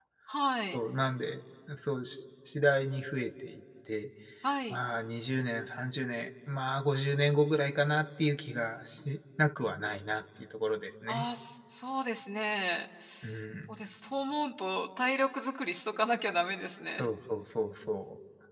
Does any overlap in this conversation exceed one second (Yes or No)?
No